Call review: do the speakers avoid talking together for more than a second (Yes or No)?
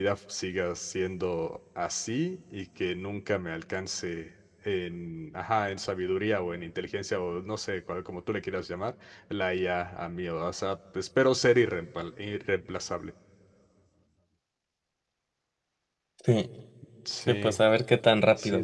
Yes